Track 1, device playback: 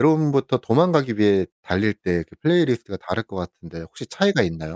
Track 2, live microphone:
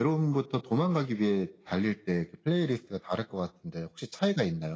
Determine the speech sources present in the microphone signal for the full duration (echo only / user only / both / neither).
echo only